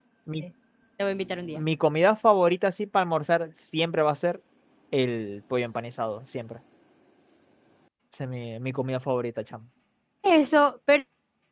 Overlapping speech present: No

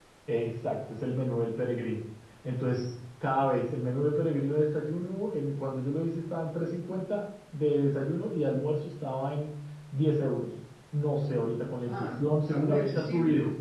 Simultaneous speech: Yes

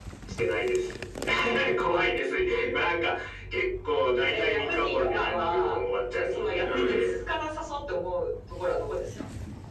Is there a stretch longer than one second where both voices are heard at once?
Yes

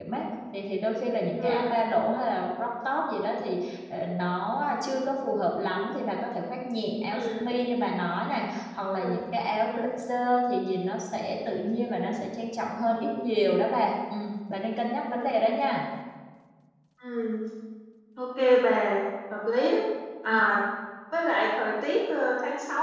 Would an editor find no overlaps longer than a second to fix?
Yes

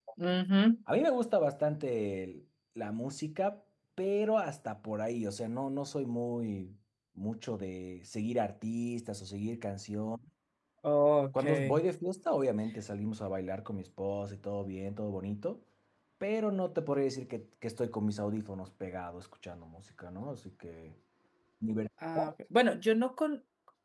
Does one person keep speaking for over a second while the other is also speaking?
No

